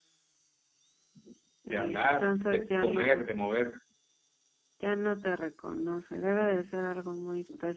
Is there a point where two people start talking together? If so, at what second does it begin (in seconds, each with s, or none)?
1.7 s